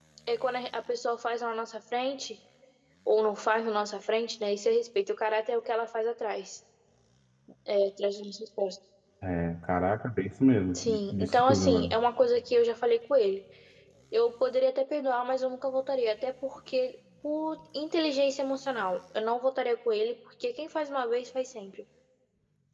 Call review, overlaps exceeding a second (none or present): present